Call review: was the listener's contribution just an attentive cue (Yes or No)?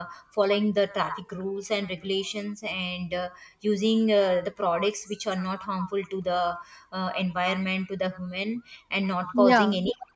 Yes